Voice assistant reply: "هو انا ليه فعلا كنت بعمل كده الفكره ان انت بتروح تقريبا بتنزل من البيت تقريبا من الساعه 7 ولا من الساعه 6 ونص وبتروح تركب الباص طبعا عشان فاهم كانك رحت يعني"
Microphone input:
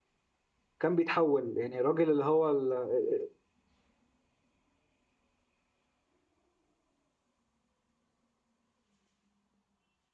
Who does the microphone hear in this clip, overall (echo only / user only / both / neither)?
user only